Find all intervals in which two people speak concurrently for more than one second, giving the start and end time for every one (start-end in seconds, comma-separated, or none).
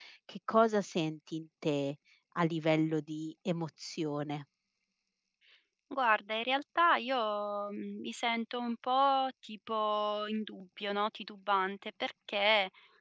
none